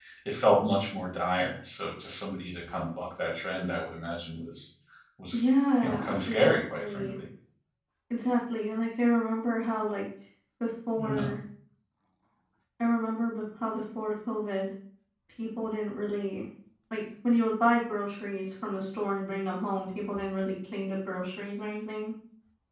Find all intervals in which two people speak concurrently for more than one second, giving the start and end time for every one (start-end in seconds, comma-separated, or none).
5.8-7.0